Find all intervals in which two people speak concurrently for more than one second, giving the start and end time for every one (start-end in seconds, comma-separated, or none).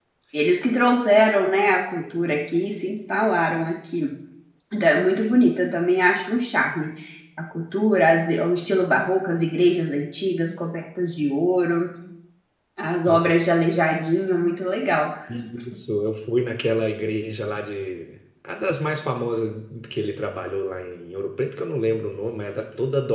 none